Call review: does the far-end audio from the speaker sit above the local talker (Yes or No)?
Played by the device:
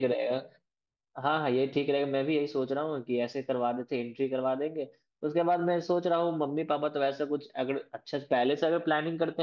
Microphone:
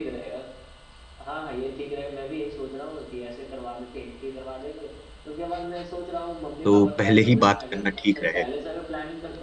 No